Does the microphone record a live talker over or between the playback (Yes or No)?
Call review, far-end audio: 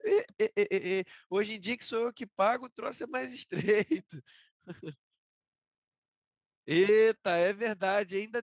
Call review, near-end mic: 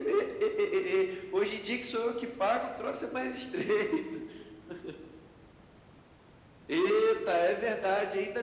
No